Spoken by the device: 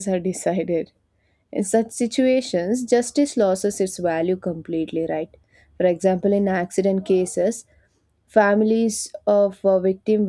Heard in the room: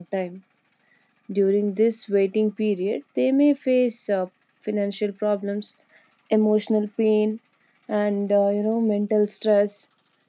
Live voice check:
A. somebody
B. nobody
A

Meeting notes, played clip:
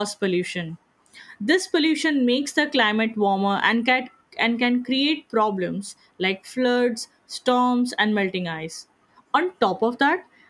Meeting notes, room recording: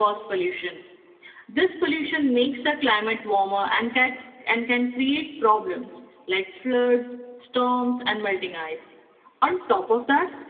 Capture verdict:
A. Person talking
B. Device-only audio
B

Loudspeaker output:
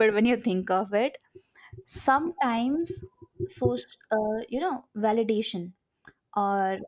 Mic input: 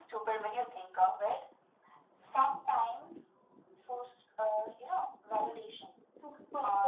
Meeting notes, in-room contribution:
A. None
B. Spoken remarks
B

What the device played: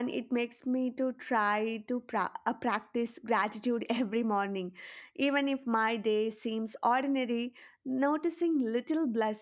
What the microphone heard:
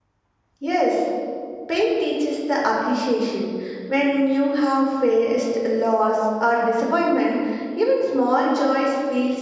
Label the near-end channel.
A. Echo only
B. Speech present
B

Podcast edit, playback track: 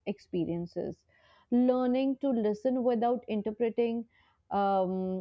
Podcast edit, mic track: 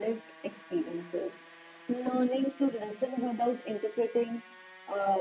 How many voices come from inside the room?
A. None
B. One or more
A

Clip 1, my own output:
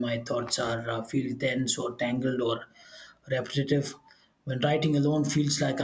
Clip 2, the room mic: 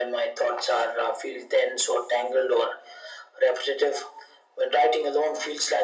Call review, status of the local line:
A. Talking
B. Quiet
B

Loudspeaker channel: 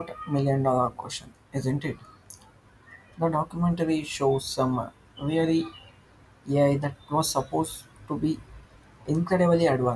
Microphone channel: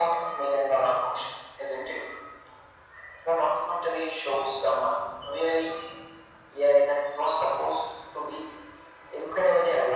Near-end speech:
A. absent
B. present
A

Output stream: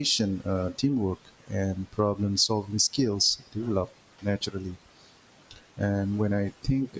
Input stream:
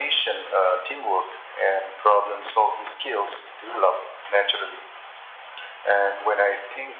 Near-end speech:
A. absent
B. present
A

